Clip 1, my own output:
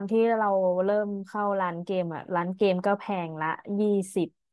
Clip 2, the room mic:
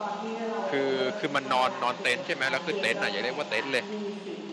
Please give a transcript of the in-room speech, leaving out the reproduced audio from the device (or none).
คือคือมันนอนนอนเต็นท์ใช่ไหมแล้วคือเต็นท์อ่ะอย่าเรียกว่าเต็นท์เลย